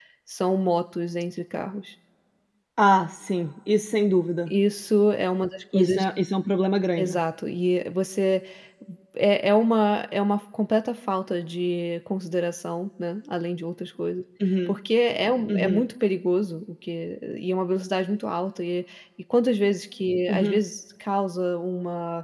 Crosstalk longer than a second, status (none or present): none